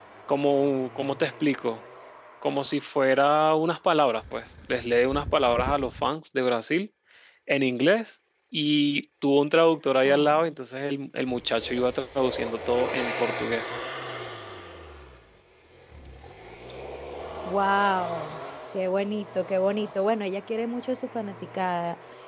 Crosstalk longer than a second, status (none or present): none